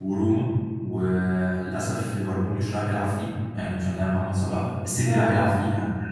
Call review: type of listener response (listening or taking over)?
listening